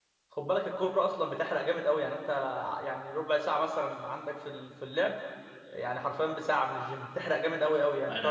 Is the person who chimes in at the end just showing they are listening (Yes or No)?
No